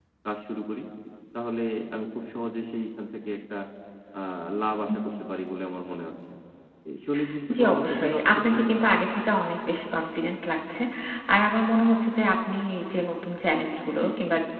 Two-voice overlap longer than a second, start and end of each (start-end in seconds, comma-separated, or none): 7.6-8.8